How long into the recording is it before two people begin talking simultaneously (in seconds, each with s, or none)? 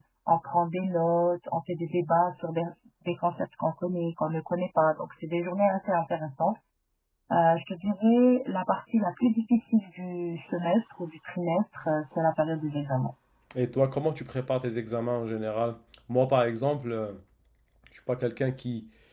none